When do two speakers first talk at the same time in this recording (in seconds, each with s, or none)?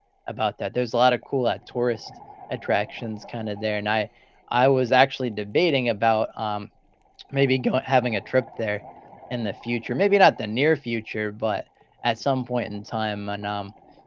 none